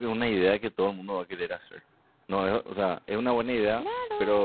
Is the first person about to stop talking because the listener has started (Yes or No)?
Yes